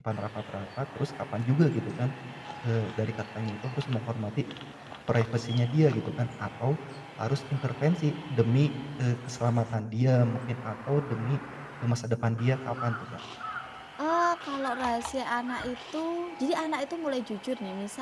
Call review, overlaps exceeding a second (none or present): none